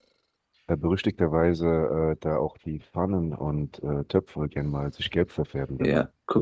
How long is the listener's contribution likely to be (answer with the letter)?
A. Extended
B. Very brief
A